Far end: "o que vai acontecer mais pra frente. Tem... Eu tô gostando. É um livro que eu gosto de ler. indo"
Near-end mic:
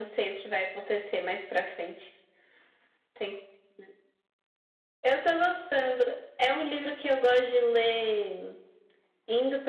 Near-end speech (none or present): none